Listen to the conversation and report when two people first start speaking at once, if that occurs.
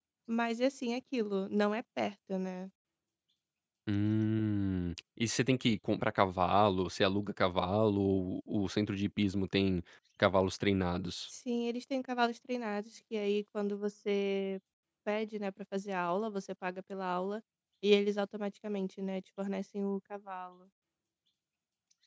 none

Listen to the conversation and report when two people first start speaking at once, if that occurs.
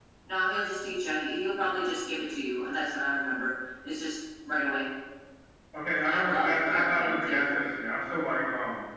6.1 s

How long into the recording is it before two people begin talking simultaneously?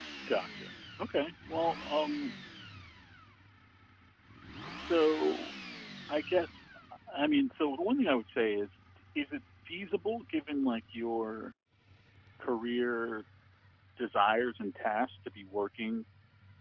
none

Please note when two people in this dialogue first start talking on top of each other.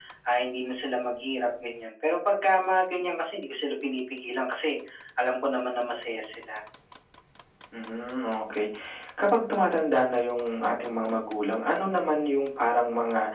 none

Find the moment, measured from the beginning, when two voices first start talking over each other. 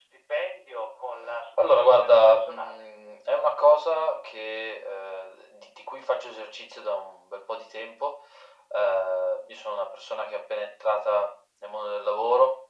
1.6 s

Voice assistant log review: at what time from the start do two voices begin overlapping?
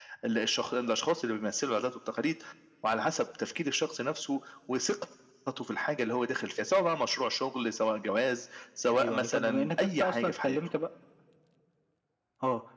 8.9 s

